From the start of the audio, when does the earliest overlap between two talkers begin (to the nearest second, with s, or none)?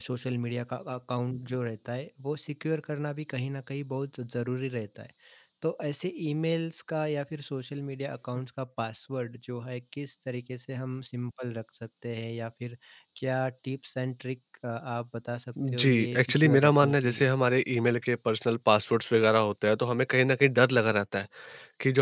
16 s